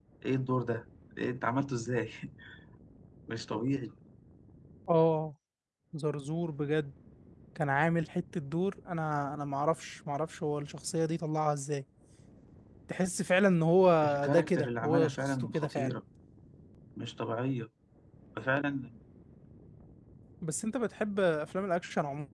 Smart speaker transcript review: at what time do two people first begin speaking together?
14.3 s

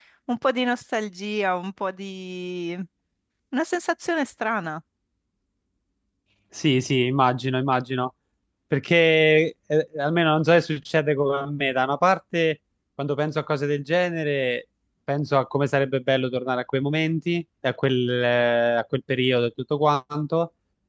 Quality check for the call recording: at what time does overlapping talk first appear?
none

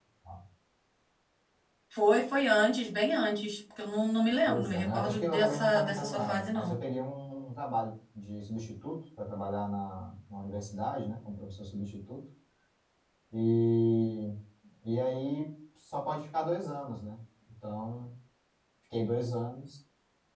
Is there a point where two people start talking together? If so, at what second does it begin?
4.5 s

